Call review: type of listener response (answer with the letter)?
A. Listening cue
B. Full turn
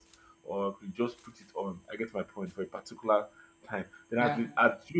A